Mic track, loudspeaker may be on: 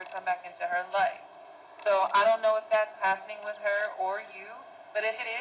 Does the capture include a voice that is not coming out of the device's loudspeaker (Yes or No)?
No